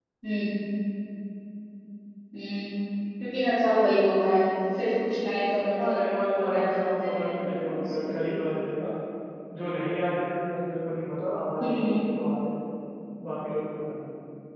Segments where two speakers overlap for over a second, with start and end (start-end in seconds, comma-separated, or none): 5.8-8.4